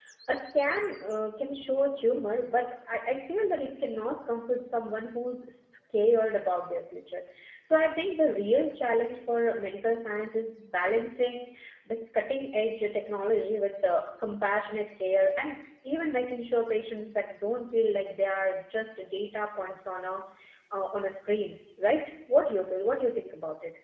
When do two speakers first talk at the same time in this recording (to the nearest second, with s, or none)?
none